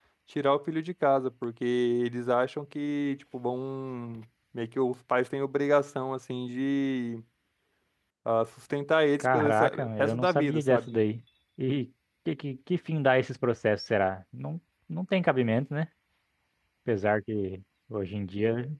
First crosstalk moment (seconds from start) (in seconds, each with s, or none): 9.2 s